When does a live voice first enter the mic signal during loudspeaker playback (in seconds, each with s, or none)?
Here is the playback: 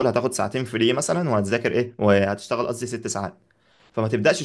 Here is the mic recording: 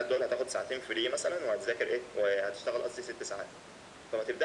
none